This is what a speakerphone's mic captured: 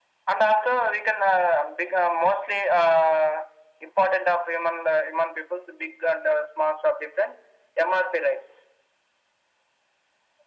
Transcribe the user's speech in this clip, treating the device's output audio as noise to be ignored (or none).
none